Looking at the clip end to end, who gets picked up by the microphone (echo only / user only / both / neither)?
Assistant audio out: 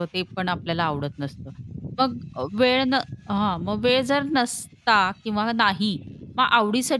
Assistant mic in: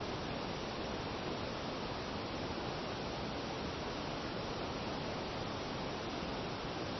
neither